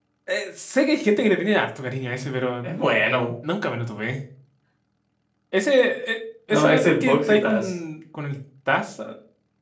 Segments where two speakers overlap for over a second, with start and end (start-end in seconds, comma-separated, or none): 6.5-7.7